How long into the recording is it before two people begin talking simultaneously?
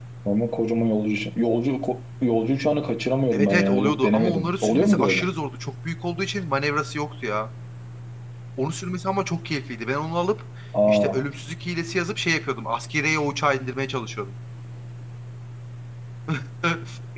3 s

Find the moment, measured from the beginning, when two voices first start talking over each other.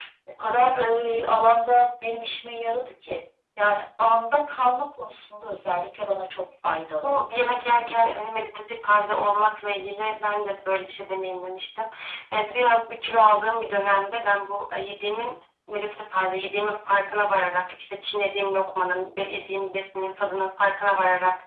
7 s

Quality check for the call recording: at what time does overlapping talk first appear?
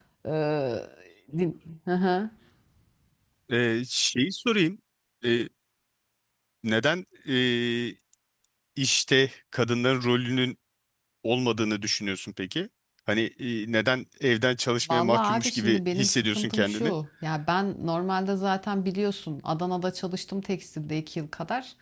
15 s

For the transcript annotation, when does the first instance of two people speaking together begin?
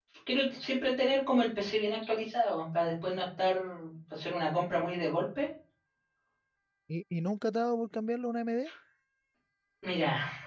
none

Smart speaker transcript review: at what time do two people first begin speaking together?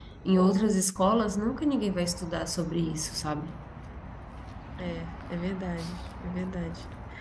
none

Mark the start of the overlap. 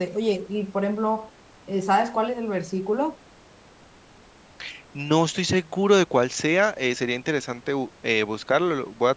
none

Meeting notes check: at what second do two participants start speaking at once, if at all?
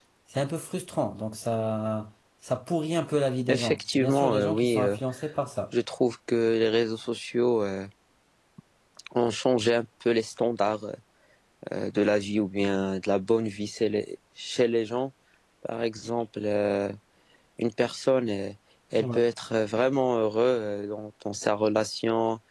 3 s

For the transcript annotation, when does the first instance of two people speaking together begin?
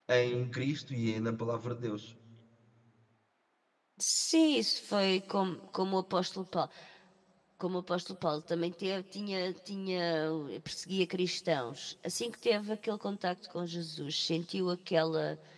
none

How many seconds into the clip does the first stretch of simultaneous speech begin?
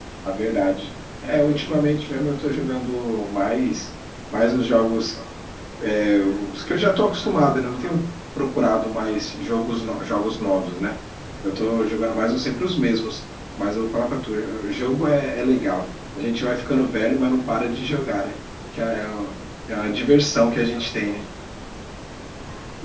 none

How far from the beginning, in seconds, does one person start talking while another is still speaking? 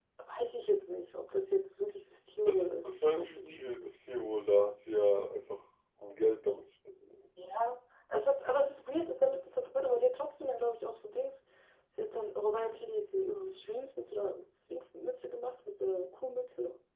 2 s

